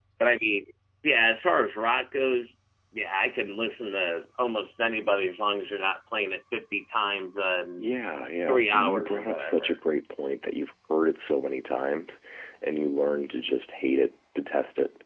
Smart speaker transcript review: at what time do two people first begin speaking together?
8 s

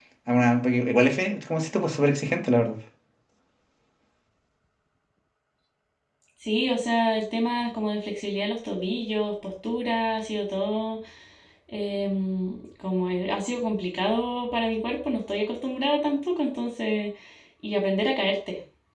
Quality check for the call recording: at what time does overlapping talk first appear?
none

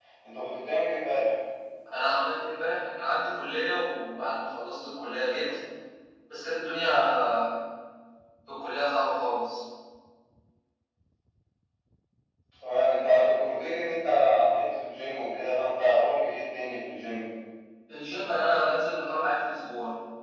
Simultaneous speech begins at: none

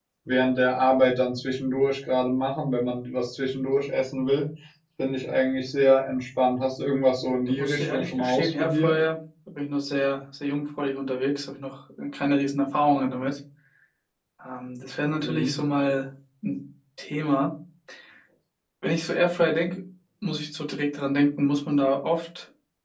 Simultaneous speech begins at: 7 s

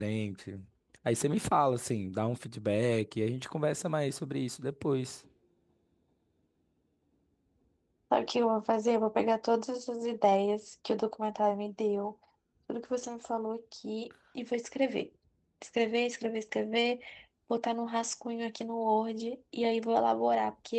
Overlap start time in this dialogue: none

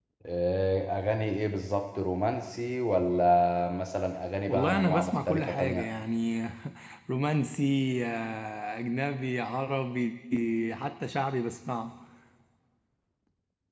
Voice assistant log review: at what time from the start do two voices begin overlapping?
4 s

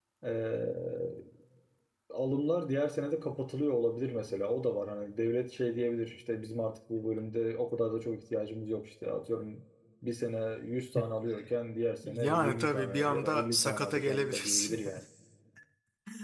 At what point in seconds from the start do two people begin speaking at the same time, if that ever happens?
12 s

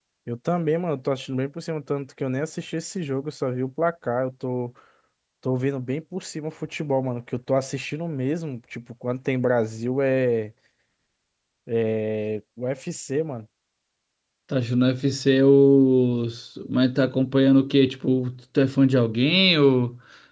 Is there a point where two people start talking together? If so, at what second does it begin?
none

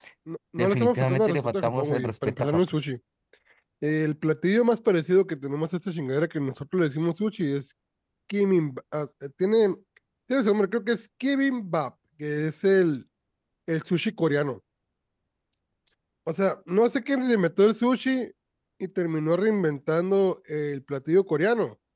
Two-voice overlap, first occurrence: 1 s

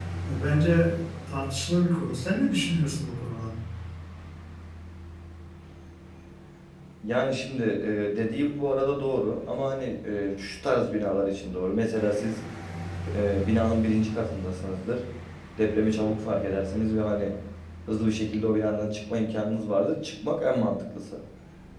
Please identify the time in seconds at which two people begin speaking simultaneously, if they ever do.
none

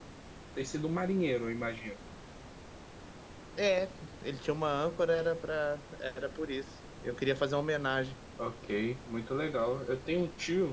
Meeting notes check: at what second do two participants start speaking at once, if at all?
none

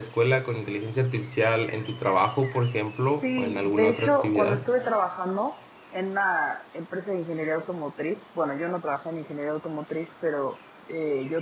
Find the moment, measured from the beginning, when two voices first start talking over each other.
3 s

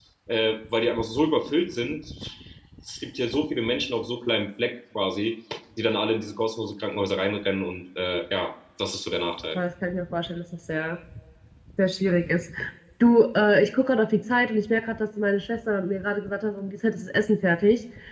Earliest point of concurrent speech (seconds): none

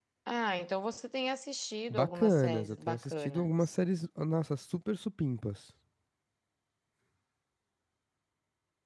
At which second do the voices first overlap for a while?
2 s

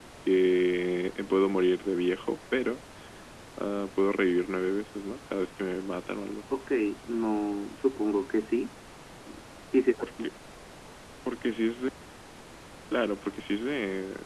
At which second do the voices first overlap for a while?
none

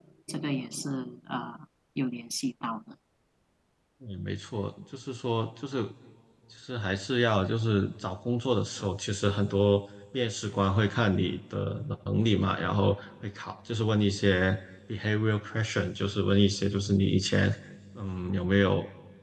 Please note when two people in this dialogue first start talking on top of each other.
none

